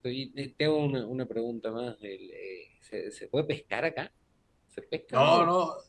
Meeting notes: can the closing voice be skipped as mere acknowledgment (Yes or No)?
No